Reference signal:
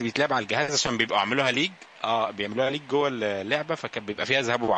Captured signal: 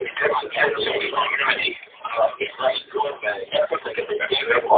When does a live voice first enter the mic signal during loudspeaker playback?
0.7 s

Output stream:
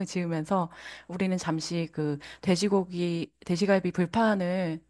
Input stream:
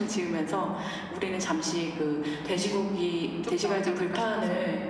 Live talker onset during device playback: 3.2 s

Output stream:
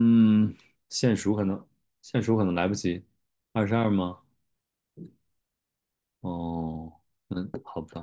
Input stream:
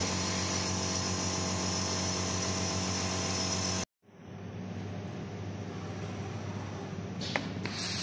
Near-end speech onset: none

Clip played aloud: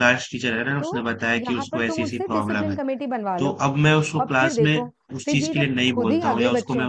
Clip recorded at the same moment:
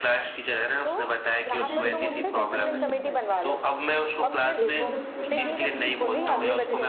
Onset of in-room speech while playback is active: 1.5 s

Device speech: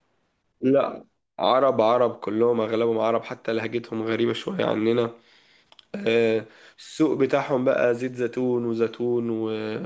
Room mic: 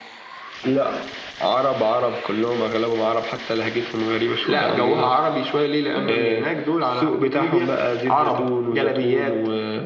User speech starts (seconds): 4.4 s

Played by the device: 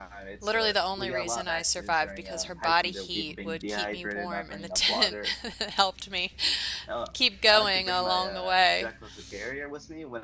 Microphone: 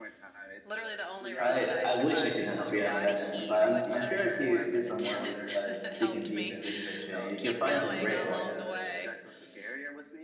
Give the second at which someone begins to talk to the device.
1.4 s

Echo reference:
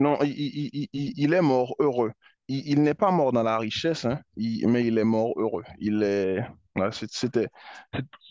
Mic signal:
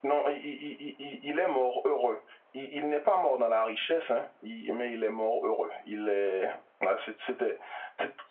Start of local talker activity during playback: none

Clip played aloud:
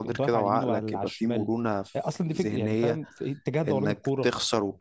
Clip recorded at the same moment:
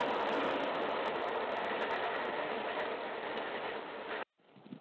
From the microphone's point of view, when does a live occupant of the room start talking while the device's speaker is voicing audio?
none

